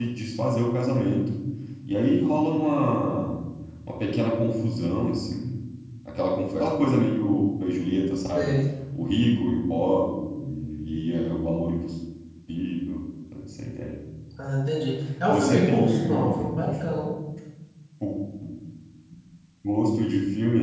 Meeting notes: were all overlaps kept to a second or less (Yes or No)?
No